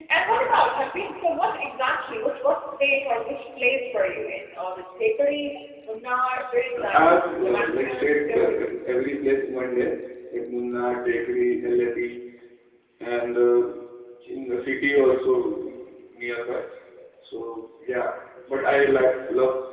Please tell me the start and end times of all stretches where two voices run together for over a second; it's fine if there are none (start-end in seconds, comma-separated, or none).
6.8-8.7